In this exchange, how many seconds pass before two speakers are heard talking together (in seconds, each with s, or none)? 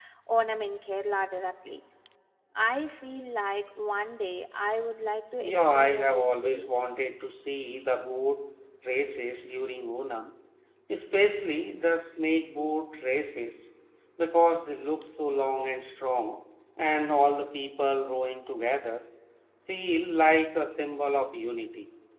5.4 s